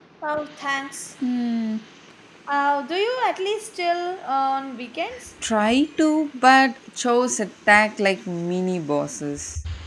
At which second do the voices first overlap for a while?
none

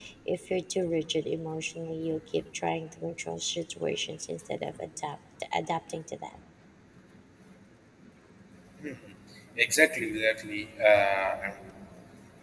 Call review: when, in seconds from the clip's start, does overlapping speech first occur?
none

